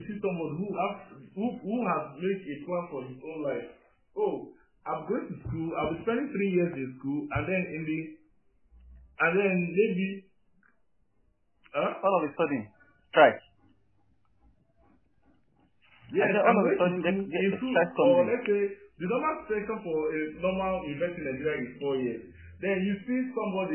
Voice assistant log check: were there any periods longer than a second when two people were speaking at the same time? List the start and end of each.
16.2-18.3

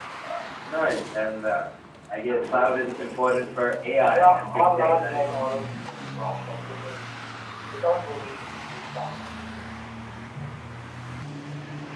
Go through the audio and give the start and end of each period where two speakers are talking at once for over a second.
4.1-5.4

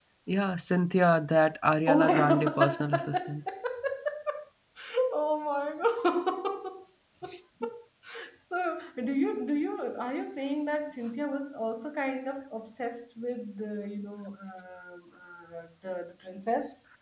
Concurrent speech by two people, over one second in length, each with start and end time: 1.9-3.1

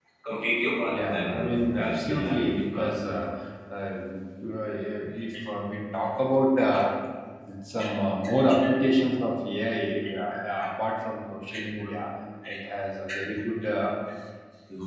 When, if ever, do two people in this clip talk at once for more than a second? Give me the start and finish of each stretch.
0.9-3.0

